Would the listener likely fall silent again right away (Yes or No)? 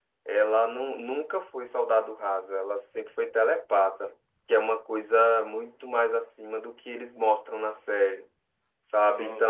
Yes